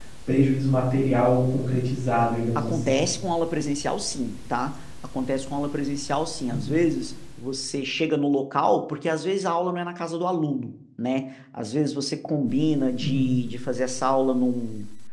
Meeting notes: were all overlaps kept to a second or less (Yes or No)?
Yes